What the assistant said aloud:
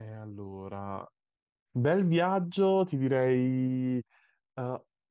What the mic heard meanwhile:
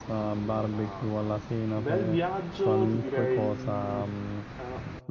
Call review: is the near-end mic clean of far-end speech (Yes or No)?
No